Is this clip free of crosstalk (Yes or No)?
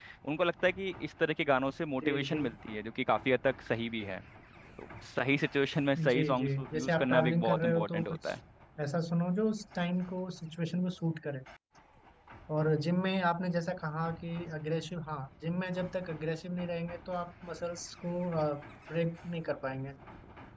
No